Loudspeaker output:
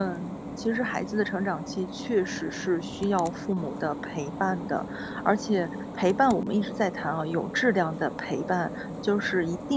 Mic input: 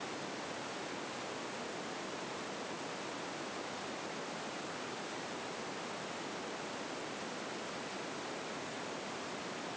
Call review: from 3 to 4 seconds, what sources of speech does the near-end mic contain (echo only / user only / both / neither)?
neither